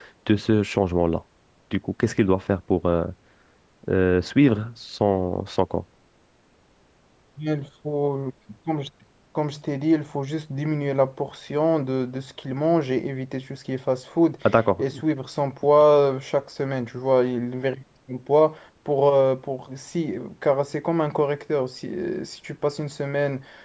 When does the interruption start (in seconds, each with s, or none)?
none